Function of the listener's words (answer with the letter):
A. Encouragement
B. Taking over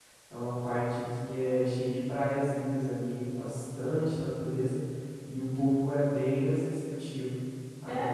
A